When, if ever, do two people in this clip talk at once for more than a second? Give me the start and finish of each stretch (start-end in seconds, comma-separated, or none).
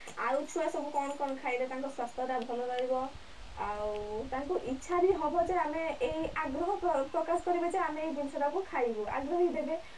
none